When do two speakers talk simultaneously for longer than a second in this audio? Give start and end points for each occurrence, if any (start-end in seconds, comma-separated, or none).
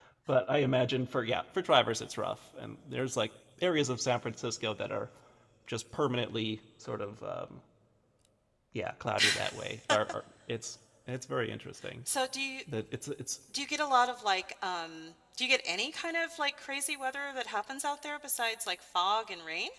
none